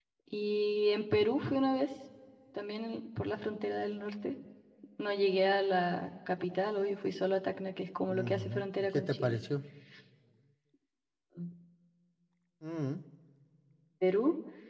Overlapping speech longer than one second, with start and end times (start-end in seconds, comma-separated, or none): 8.1-9.4